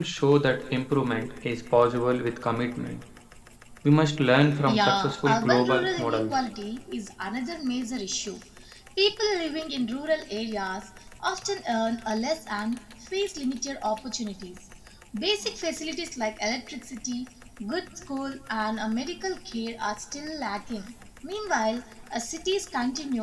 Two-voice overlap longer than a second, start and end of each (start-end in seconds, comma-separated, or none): 4.7-6.4